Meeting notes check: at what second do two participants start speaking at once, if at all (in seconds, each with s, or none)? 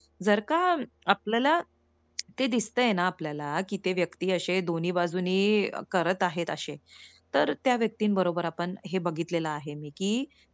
none